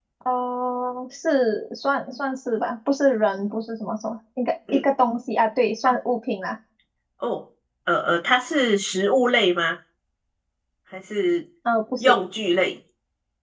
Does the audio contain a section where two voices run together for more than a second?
No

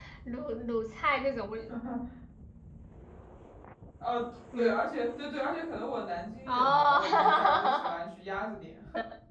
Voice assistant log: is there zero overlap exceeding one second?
No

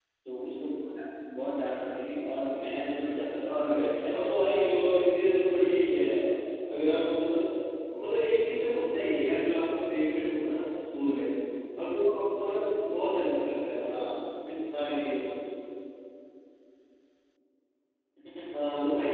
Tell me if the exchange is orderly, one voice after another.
No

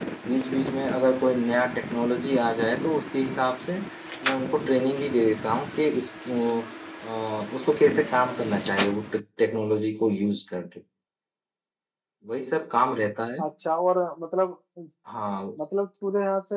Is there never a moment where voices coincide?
Yes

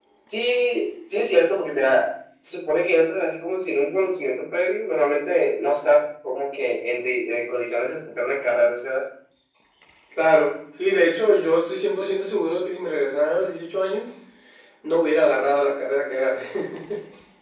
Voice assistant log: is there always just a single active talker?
Yes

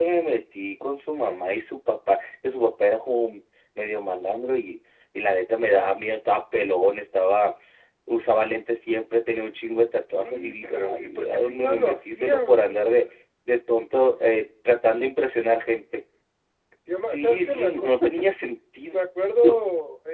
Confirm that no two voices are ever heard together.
No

